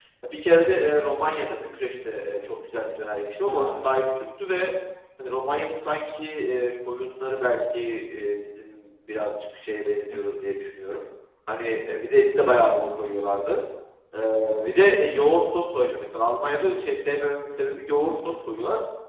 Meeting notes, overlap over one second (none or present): none